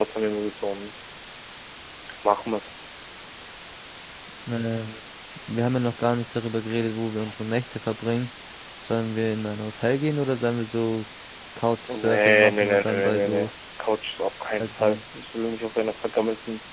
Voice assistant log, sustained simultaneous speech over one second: present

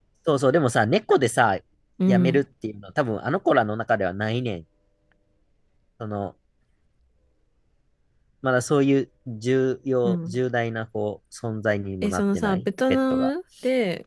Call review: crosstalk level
present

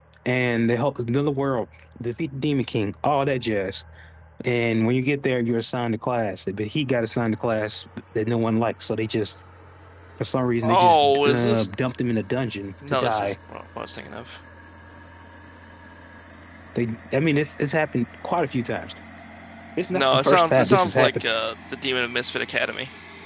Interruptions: present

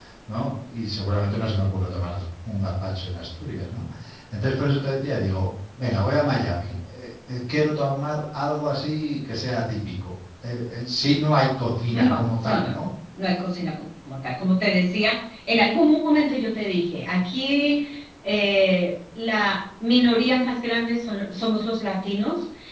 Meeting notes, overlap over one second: none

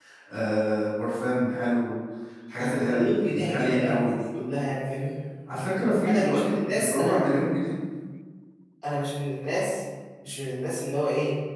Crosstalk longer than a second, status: present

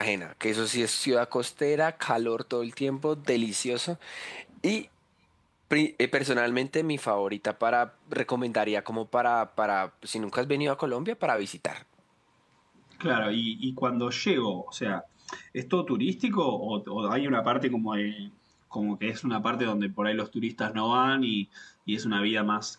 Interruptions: none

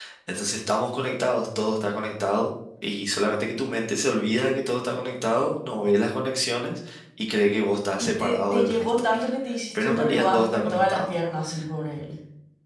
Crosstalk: present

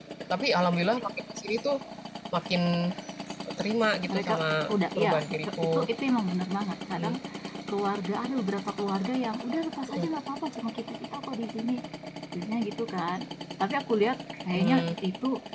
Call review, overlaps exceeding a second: none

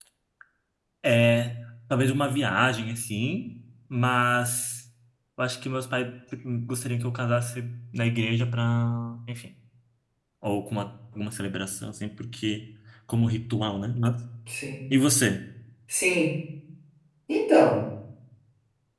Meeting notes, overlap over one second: none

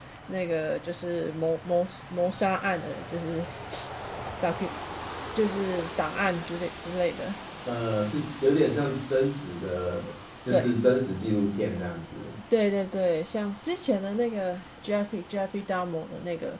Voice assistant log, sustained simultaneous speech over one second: none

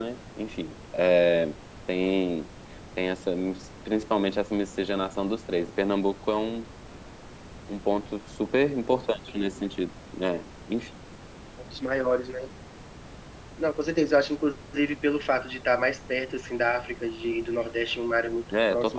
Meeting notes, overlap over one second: none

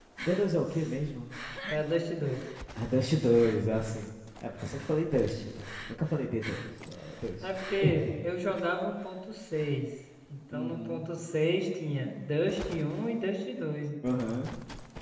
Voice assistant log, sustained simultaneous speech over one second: none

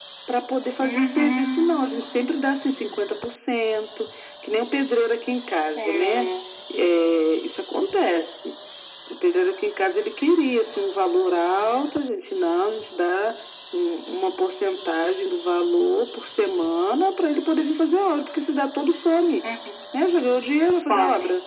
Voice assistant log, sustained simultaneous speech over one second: present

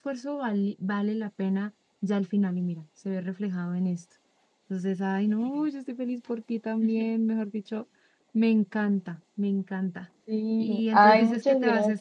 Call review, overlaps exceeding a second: present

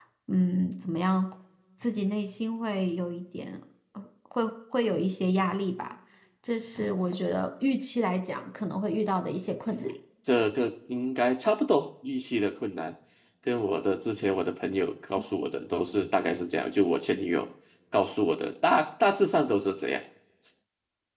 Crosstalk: none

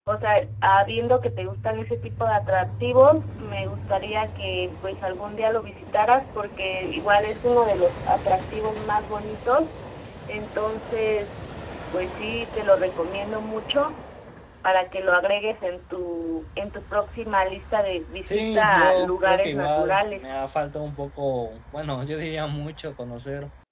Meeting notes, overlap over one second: present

